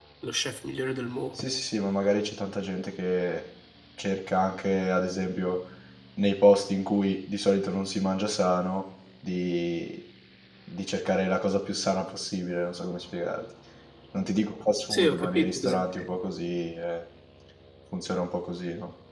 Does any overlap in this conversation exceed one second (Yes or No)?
Yes